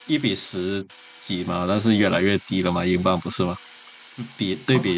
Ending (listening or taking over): taking over